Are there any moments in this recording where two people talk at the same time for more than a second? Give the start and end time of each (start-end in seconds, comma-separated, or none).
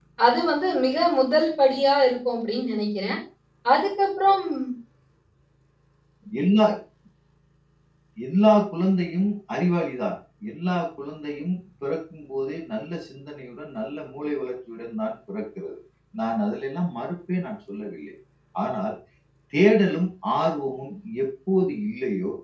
none